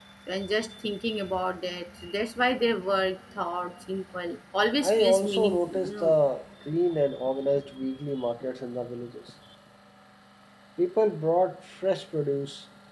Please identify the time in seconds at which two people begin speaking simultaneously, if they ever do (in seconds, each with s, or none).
4.8 s